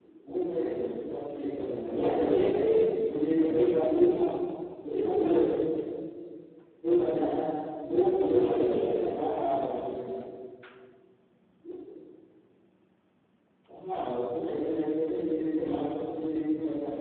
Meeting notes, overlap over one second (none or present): present